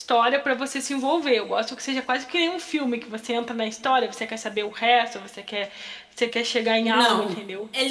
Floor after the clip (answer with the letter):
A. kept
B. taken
B